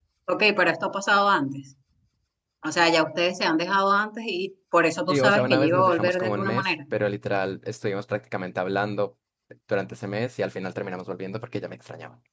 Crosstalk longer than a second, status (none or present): present